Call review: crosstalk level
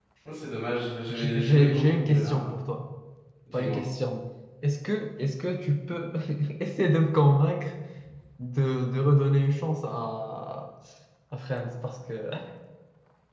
present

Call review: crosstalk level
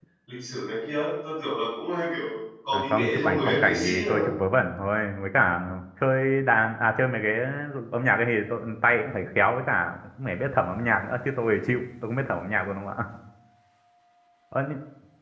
present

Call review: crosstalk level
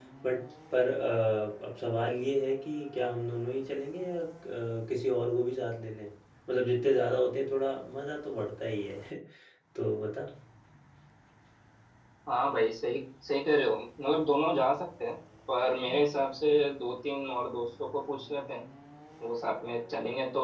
none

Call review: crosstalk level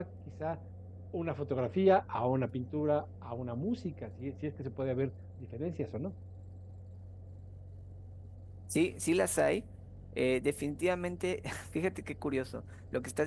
none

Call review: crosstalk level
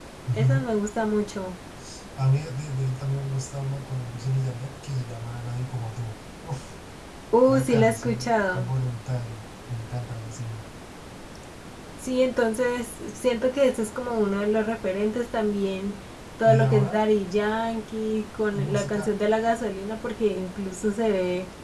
present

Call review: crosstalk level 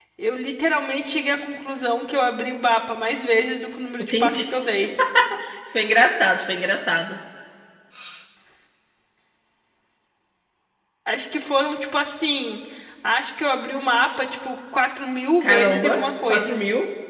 present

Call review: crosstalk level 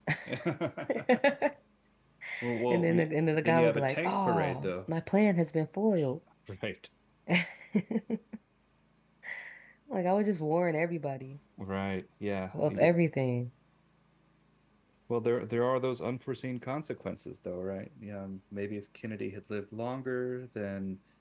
present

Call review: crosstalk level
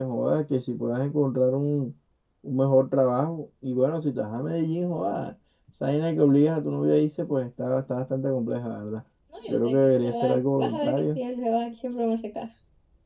present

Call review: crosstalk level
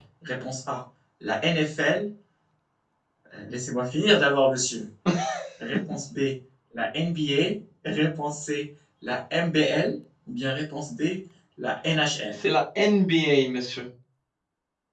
none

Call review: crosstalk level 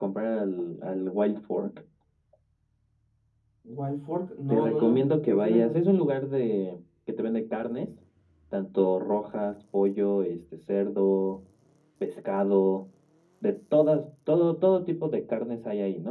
present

